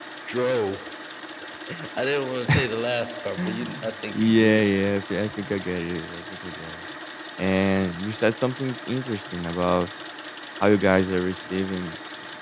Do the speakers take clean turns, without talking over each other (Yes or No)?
No